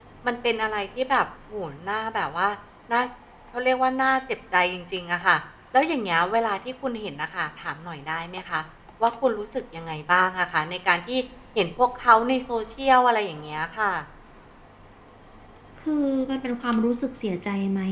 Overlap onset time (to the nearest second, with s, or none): none